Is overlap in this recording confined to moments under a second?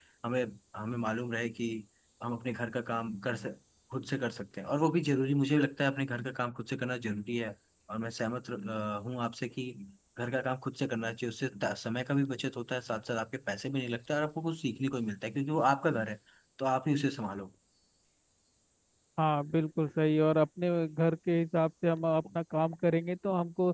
Yes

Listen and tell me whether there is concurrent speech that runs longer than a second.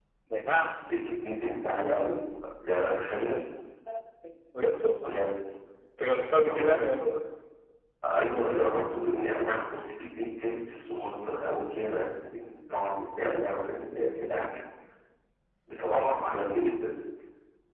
No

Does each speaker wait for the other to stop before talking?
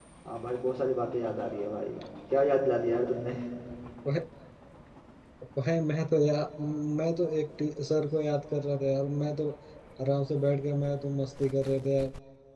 Yes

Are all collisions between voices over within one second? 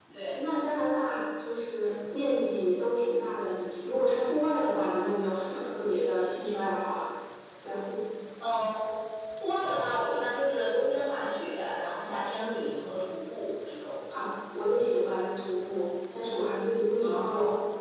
Yes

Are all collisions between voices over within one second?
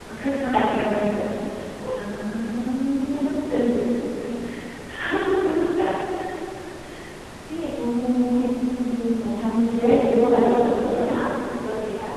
No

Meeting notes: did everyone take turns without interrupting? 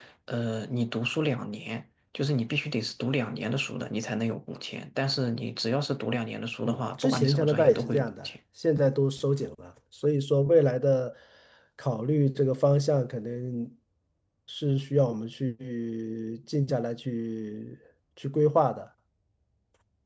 No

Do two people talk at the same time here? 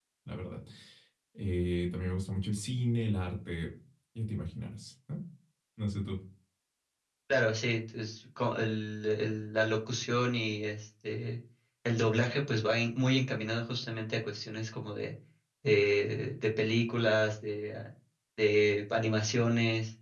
No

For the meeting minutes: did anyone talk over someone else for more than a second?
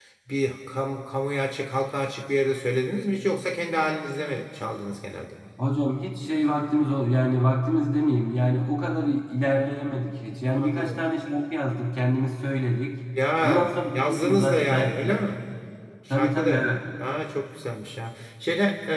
Yes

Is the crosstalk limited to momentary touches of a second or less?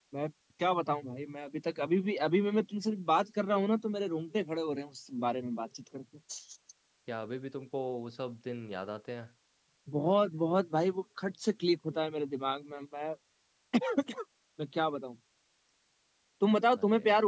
Yes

